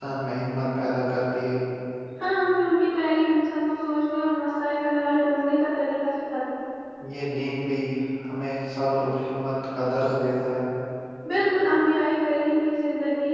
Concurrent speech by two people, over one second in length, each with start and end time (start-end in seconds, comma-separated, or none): none